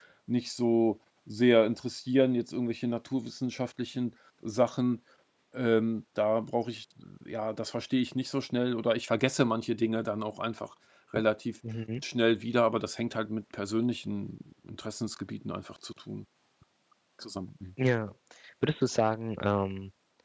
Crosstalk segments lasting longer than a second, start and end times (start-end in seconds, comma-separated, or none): none